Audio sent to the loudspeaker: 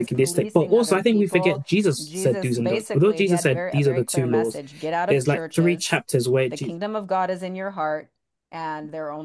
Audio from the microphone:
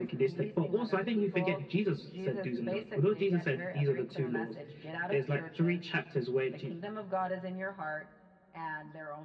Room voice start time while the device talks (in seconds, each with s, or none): none